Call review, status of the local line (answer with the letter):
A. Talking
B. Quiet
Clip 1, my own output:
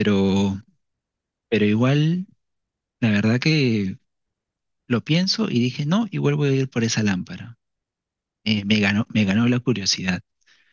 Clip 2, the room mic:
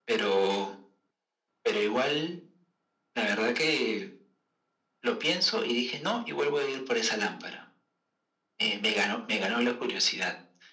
B